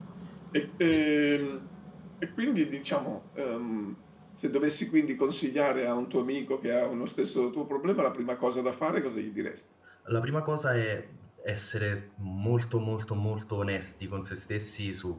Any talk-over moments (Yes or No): No